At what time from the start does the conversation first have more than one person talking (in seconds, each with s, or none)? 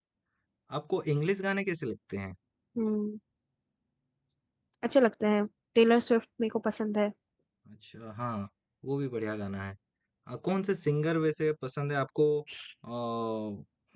none